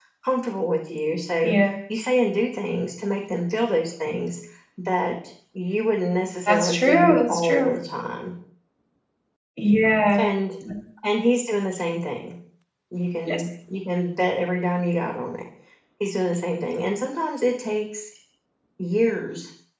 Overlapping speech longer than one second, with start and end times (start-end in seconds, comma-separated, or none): 6.5-7.7